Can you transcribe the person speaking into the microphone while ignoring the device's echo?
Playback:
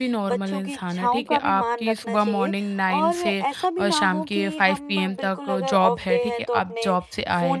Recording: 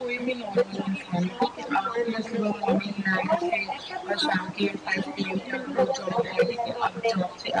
बिल्कुल।

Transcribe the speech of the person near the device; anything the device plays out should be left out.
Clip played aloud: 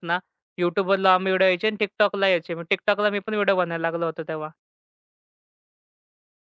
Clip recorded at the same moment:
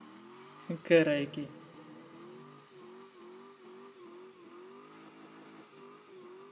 खरं आहे की.

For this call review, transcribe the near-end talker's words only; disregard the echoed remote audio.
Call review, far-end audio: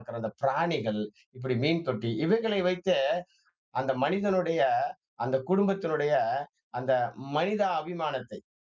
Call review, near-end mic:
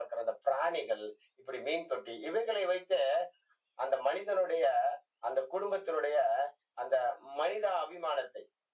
none

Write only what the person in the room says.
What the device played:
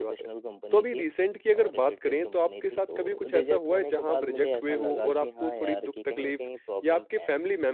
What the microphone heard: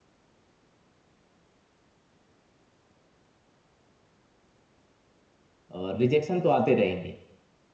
और रिजेक्शन तो आते रहेंगे।

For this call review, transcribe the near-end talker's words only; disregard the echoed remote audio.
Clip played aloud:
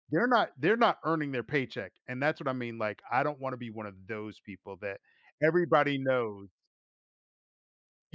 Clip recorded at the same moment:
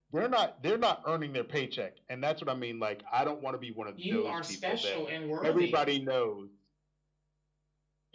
You are special and worthy.

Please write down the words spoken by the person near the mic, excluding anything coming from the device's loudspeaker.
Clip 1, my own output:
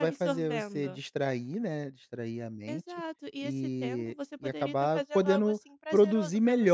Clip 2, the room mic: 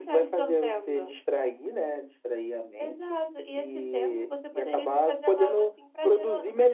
none

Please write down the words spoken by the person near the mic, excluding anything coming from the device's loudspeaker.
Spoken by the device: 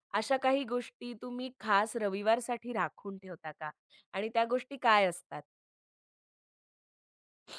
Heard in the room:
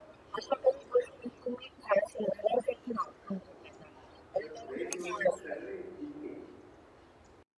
तर फ्रेंड्स वगैरे तर सगळे इतके.

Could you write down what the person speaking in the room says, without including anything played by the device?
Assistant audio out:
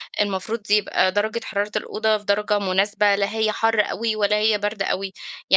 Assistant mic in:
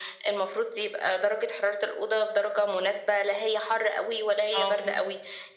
آه فهمتك.

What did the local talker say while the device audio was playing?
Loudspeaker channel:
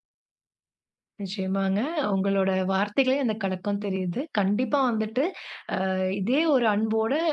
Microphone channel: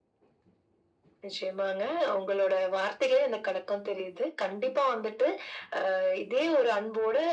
none

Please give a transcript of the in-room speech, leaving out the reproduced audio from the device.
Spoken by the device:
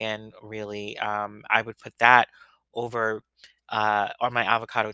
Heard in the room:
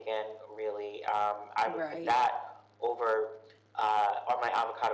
Right.

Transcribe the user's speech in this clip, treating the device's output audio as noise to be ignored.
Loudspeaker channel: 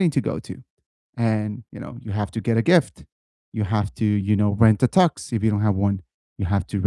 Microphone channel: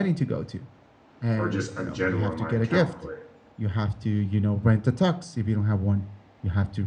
or just in general in my account but

